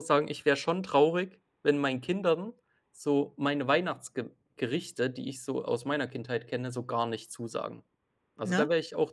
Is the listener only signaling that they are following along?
Yes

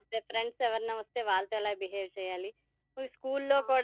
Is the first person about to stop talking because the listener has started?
No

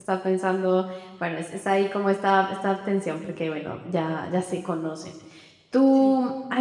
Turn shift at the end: No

